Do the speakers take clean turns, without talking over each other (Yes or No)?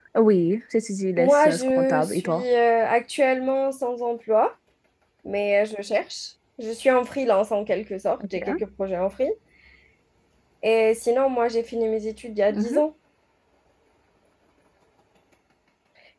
No